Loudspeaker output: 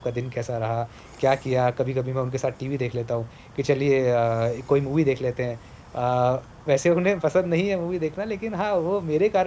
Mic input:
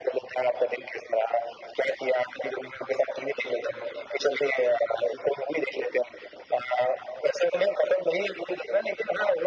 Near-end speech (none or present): none